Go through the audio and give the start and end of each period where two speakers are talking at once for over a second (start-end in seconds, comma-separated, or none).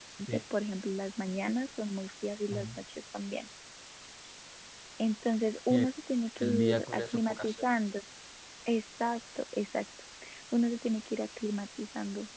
6.4-7.7